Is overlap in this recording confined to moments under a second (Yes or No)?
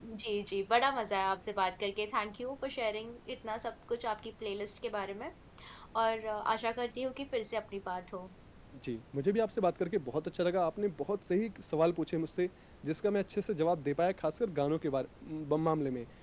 Yes